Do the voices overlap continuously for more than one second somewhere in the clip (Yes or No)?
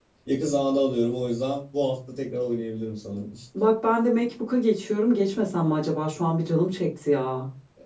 No